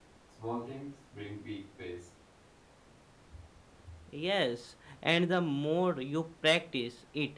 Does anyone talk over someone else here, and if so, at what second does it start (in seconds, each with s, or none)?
none